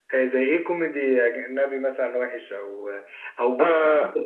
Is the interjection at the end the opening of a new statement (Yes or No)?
No